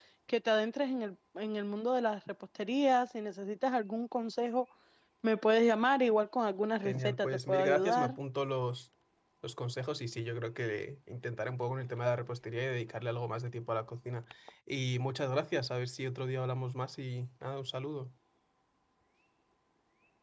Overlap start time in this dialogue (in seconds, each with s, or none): 6.8 s